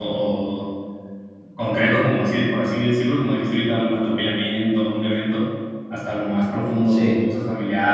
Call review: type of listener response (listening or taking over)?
listening